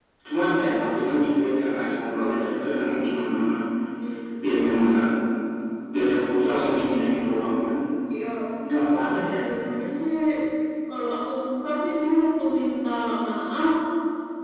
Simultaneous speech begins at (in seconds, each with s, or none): none